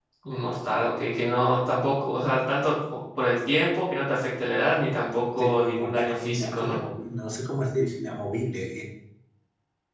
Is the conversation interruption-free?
No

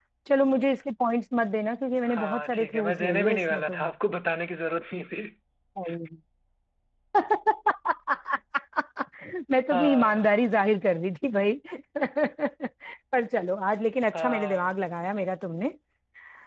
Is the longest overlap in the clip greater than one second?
Yes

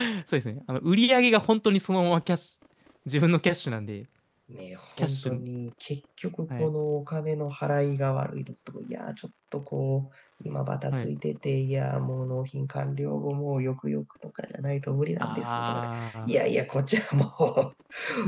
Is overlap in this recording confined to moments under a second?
No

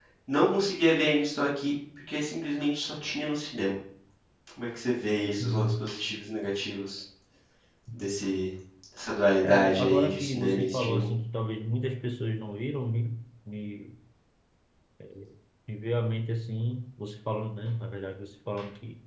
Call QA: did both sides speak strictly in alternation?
No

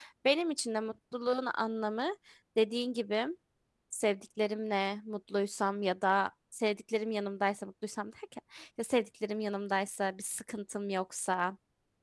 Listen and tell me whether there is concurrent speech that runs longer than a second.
No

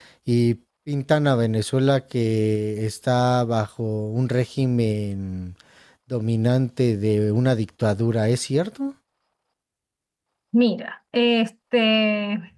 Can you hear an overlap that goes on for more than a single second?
No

